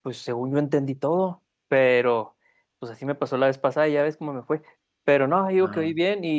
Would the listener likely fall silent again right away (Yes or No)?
Yes